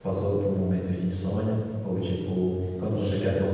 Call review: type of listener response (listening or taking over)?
listening